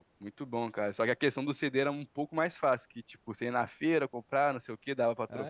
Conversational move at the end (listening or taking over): taking over